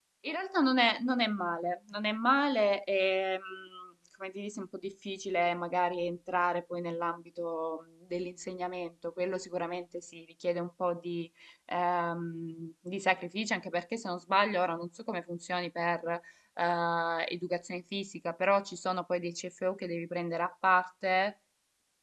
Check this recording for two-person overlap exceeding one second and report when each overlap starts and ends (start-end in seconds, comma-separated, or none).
none